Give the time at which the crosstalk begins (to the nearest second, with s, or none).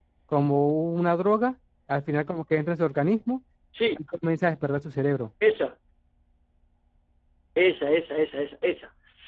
none